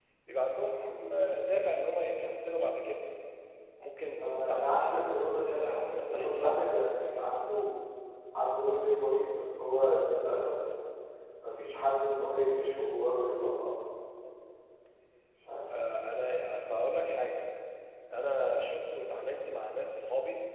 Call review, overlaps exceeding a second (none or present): present